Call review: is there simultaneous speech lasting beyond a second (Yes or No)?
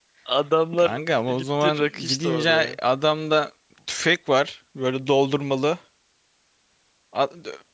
Yes